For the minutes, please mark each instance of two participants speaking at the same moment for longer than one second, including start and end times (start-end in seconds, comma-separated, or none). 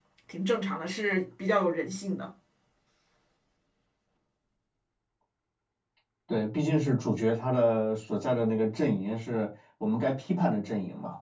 none